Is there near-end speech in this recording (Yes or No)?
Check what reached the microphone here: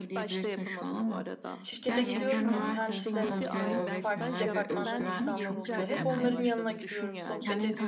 Yes